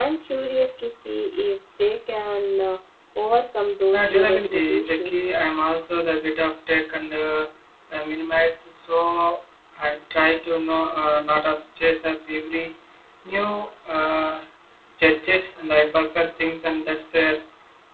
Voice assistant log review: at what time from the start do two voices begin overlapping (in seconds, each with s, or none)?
3.9 s